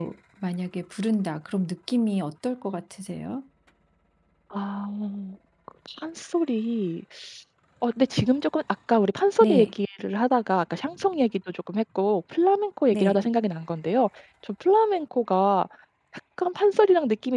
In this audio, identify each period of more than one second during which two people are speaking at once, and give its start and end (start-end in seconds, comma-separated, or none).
none